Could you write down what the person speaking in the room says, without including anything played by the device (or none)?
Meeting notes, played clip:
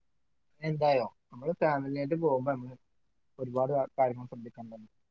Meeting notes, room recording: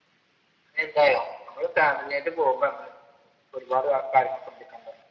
none